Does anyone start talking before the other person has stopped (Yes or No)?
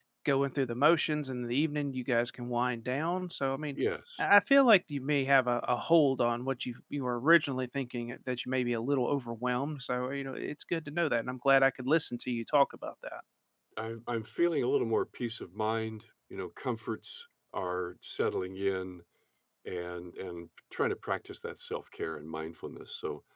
No